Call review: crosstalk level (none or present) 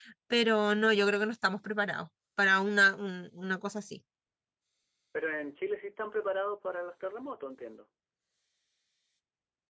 none